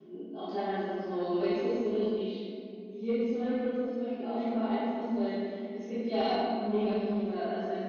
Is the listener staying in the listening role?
Yes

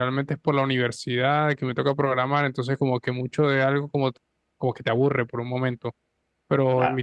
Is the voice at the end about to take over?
No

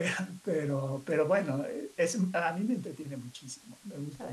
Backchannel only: No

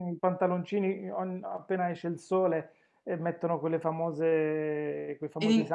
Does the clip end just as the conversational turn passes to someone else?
No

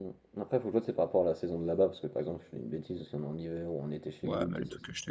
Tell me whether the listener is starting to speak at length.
Yes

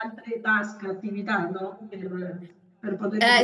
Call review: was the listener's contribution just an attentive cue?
No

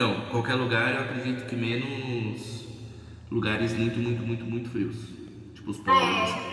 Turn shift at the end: Yes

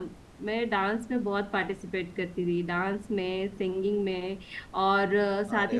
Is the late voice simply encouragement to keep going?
Yes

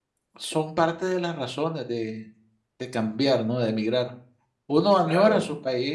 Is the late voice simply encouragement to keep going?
Yes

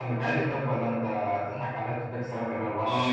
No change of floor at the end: No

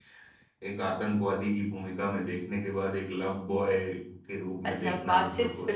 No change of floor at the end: No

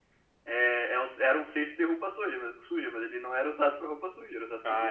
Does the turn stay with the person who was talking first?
No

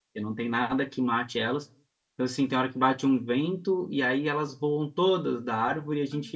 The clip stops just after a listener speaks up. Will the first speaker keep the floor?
Yes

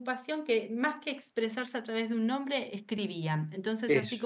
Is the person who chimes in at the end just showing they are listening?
Yes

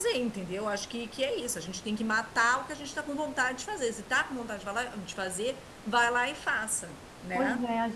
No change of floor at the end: No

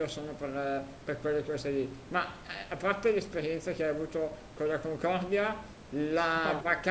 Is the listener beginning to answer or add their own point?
No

